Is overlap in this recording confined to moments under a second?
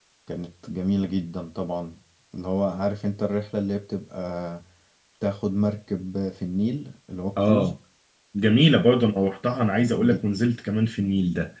Yes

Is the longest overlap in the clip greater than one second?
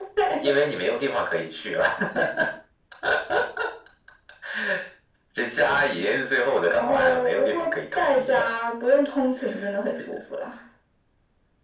Yes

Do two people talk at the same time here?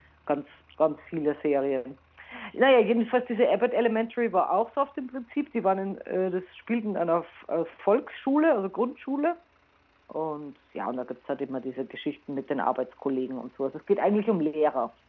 No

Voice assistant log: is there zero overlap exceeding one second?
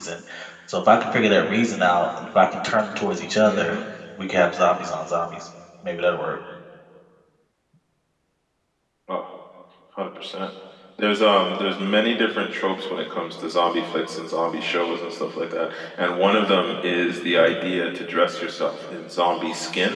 Yes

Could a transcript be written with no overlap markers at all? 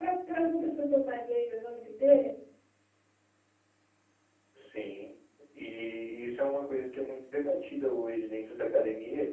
Yes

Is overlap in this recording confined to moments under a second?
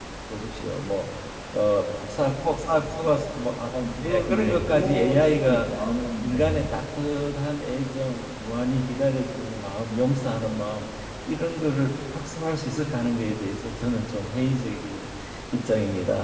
No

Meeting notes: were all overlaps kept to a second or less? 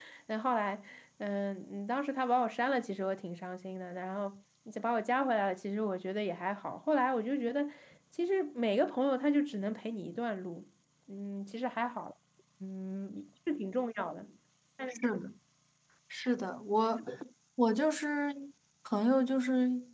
Yes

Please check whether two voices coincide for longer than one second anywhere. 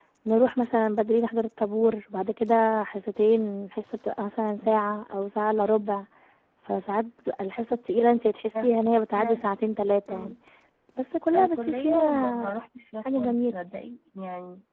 Yes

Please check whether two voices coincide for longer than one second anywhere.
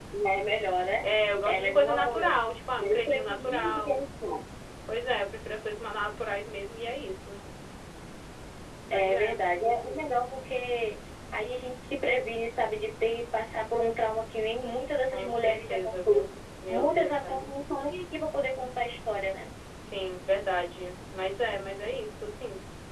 Yes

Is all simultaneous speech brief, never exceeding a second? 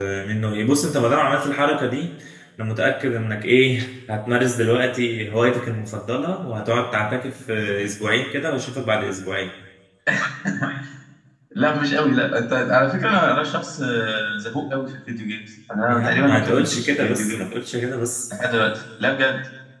No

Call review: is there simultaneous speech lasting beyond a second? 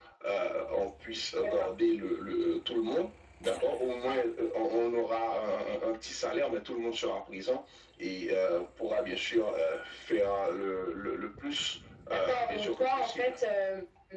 Yes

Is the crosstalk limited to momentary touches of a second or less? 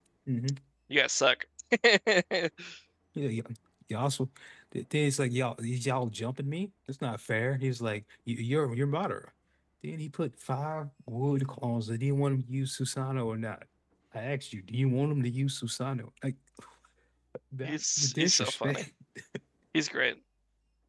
No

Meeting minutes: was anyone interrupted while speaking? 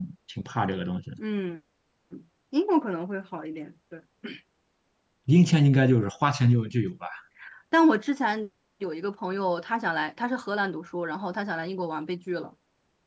No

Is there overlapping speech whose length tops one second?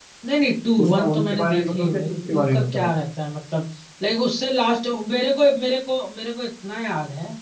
Yes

